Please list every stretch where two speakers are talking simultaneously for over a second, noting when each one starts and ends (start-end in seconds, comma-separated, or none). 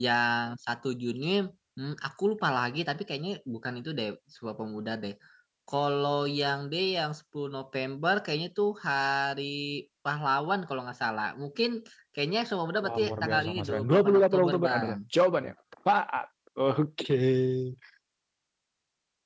12.8-15.0